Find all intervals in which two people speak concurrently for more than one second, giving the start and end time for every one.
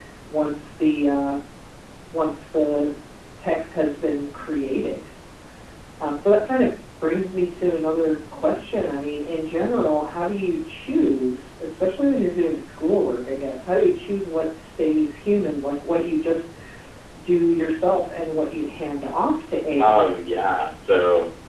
none

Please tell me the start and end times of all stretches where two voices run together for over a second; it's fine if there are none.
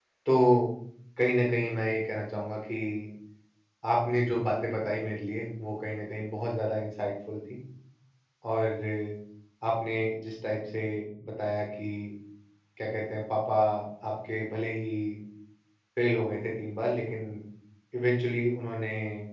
none

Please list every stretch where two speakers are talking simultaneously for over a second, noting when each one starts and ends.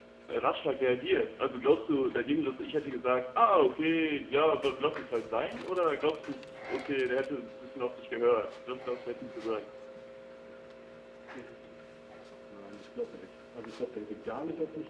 none

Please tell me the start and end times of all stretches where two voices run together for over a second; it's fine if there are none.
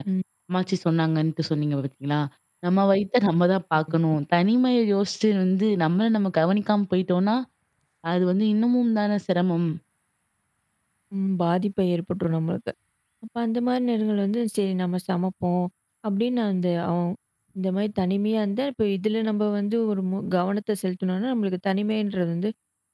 none

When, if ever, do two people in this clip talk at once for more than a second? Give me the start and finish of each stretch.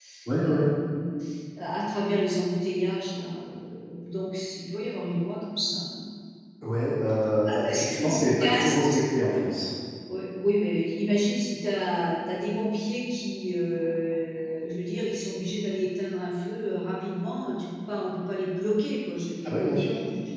7.4-9.0

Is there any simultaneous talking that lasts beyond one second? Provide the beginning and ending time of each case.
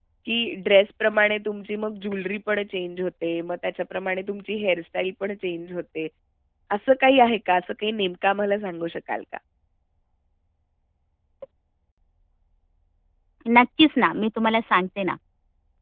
none

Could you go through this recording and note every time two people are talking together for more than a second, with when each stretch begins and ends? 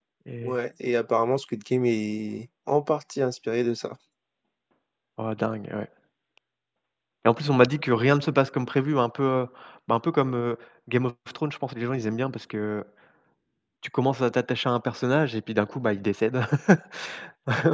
none

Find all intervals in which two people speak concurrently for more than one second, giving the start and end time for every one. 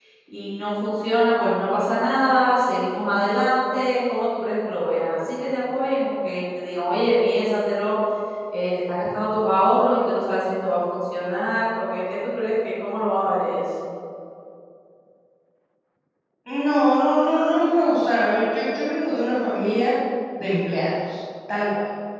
none

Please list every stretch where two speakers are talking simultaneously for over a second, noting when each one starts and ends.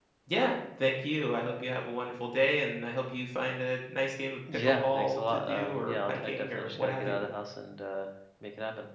4.7-7.2

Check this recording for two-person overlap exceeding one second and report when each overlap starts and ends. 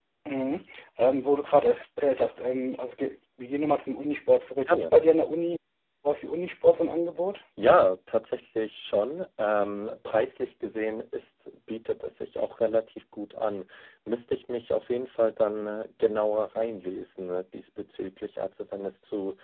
none

